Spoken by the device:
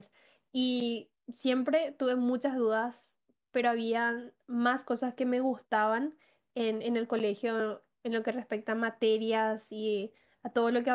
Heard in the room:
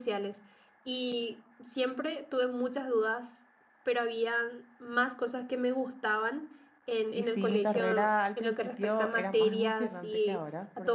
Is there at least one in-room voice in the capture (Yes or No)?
Yes